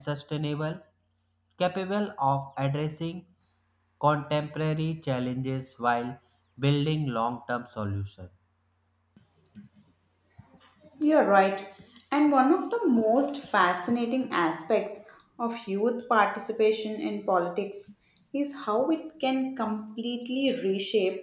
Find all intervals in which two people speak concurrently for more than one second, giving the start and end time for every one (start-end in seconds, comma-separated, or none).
none